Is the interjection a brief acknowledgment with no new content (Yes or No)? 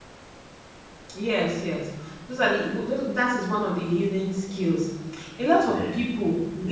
Yes